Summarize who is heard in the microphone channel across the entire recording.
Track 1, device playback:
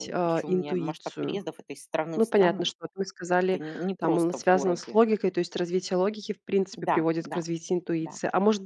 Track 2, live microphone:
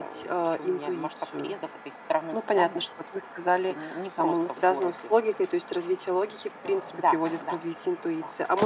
echo only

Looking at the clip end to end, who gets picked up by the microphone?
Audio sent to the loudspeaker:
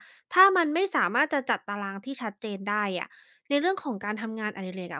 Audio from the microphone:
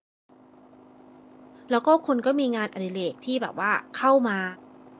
user only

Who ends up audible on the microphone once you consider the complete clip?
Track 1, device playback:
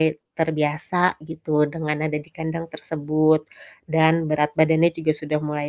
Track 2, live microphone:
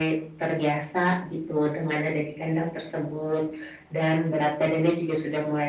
echo only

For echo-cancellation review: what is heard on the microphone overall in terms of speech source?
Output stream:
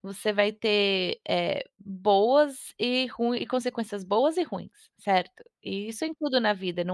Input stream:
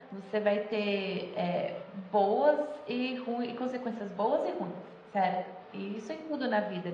echo only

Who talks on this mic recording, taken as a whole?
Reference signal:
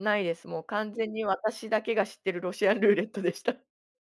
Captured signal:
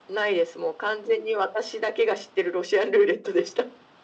echo only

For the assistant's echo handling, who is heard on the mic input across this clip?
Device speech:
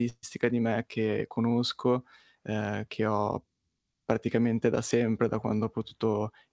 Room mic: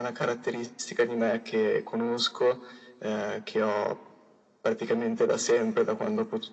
echo only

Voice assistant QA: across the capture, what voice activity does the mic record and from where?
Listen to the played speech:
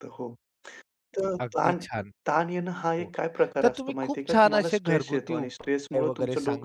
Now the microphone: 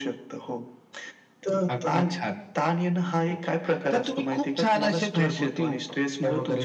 echo only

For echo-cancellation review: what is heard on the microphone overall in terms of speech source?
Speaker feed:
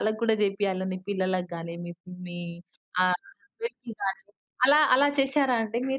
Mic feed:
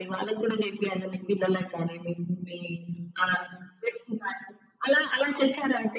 echo only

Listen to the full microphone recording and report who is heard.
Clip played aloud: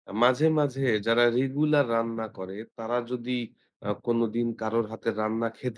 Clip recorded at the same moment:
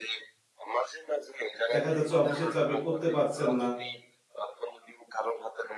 both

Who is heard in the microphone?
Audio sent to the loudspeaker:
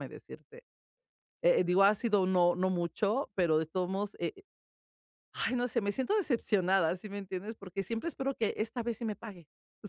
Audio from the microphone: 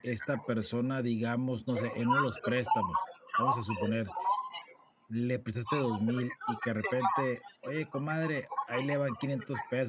both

